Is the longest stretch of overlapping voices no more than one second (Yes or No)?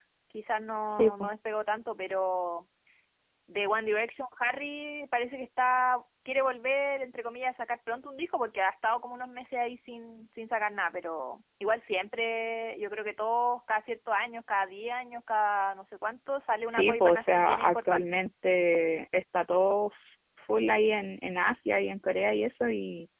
No